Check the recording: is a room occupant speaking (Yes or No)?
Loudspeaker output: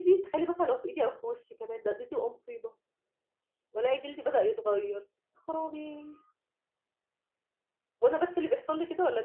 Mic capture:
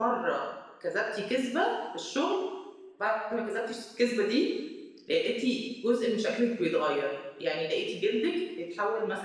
Yes